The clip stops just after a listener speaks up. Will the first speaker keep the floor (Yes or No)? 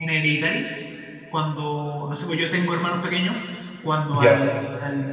Yes